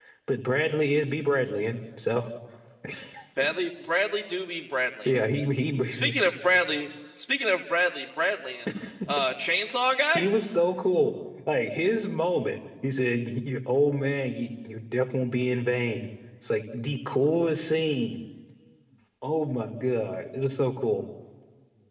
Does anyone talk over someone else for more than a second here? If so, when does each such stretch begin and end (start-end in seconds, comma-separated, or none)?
none